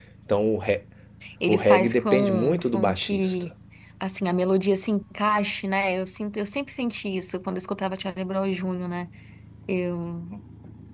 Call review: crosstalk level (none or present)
present